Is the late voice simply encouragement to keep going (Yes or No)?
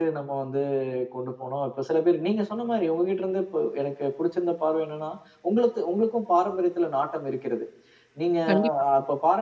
Yes